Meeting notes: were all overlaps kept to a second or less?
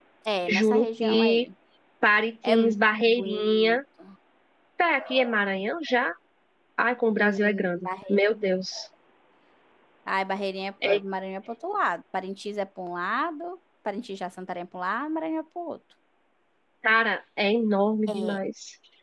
No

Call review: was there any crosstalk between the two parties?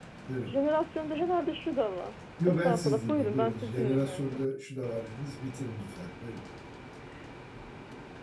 Yes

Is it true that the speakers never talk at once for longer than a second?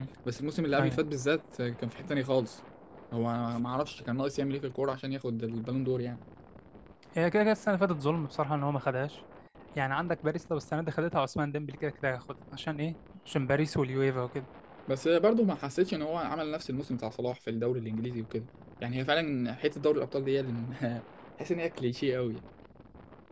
Yes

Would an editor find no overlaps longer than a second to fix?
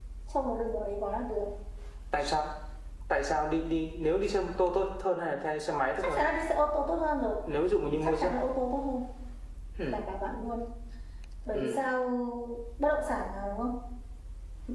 Yes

